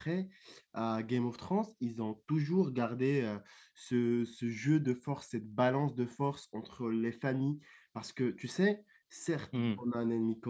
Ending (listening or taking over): listening